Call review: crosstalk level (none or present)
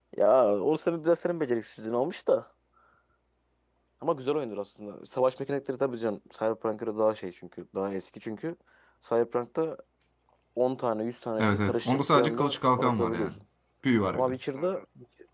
present